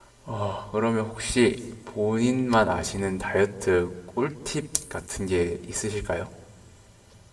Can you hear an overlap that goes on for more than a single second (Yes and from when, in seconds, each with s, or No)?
No